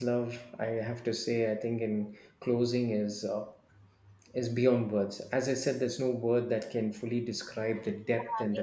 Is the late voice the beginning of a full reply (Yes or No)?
Yes